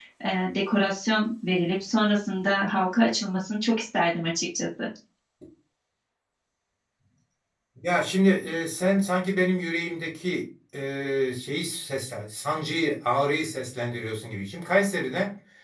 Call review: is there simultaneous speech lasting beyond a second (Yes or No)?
No